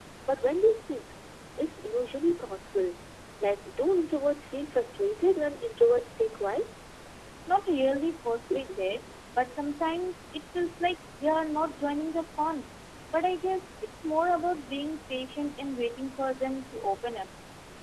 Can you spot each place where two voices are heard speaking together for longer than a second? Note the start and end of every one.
none

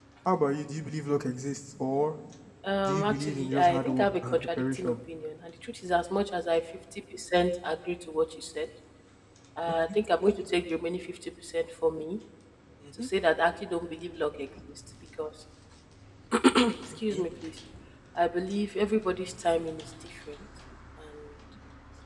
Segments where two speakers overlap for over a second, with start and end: 2.9-4.9

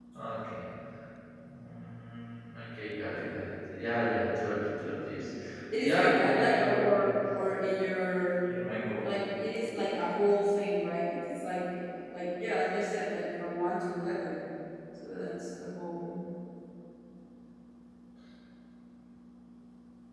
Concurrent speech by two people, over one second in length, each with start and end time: 5.8-7.1

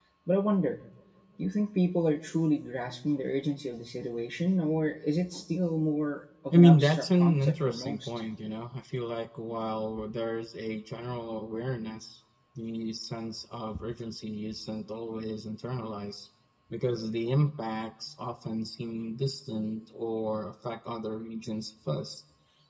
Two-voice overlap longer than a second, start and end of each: 6.5-8.1

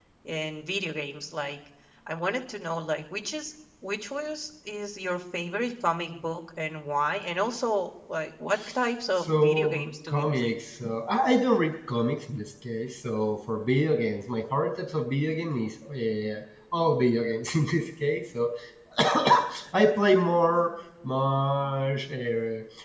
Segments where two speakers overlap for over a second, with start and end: 9.2-10.6

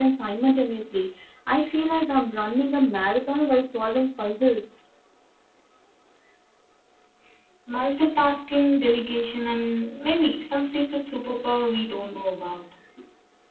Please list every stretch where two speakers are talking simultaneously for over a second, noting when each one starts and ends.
none

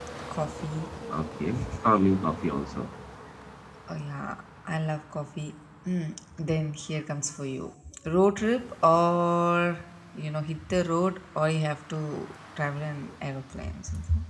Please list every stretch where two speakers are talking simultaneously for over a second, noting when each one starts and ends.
none

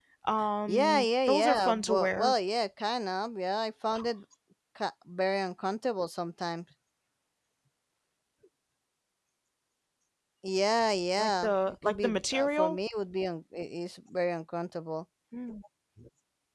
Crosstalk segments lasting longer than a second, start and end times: 0.7-2.3, 11.2-12.8

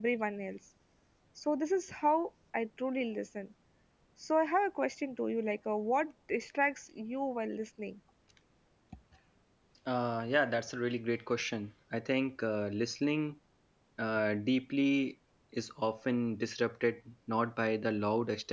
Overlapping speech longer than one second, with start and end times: none

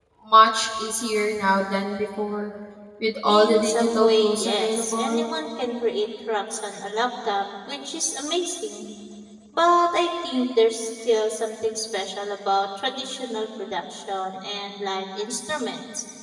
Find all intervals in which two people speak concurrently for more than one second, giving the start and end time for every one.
3.2-5.3

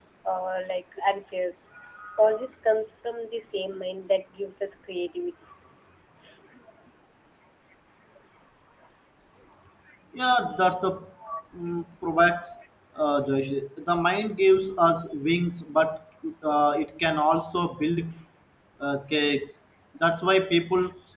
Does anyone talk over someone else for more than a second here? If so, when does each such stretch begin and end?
none

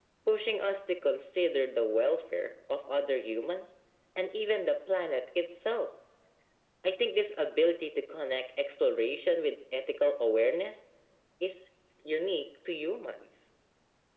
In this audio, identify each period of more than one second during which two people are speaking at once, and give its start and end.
none

